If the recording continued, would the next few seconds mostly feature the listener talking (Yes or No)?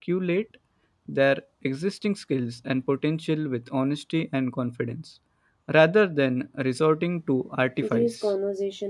Yes